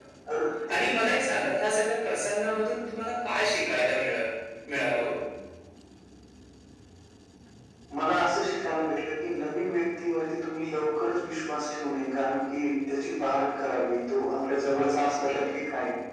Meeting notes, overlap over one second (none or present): none